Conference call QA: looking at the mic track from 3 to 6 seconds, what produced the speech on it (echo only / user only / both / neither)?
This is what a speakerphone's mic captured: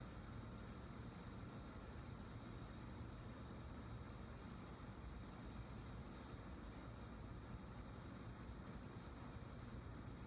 neither